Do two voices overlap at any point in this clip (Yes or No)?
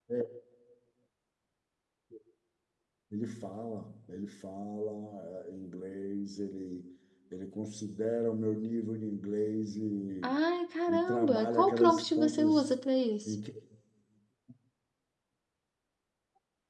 Yes